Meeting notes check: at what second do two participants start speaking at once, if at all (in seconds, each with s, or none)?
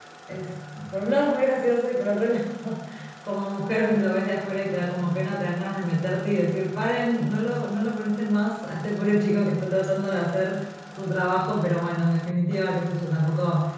none